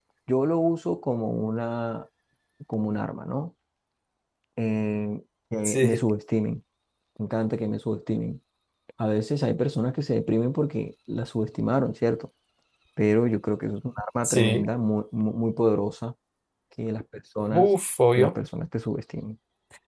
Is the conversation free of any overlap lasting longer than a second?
Yes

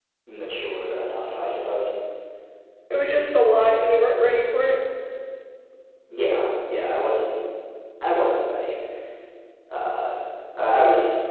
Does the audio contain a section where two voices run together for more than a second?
No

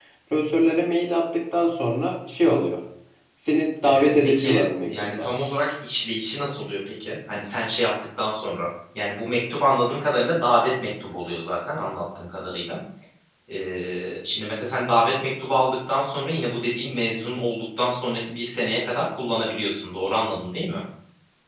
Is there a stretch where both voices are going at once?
Yes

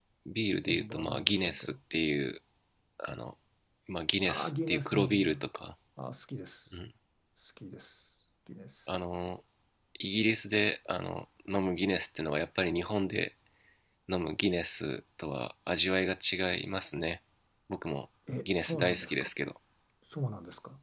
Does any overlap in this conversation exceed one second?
Yes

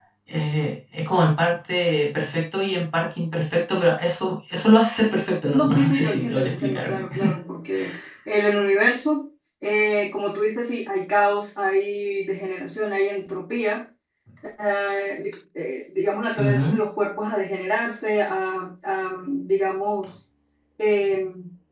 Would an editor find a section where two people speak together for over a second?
Yes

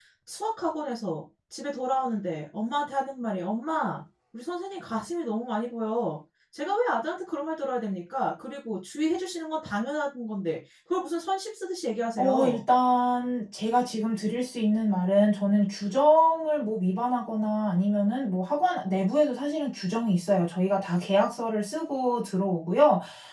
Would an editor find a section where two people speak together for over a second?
No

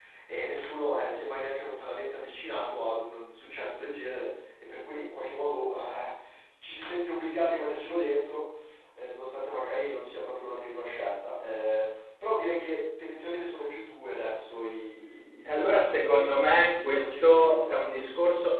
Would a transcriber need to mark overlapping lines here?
Yes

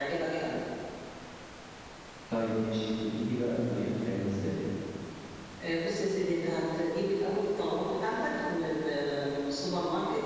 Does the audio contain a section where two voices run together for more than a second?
No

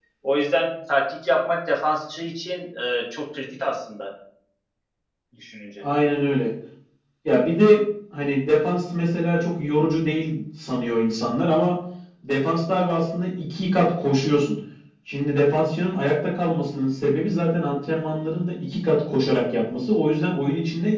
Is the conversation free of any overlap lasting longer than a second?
Yes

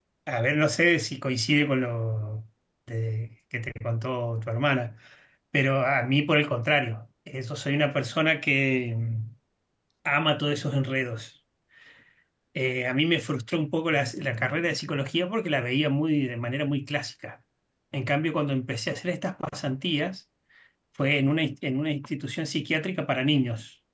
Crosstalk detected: No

